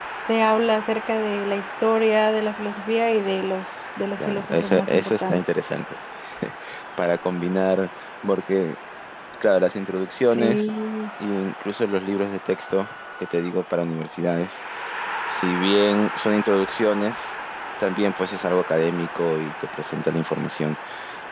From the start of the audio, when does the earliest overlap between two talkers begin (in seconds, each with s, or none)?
4.2 s